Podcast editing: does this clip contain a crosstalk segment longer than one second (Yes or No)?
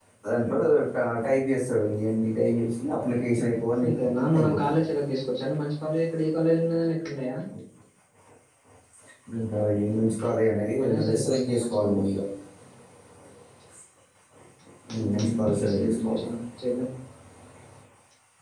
Yes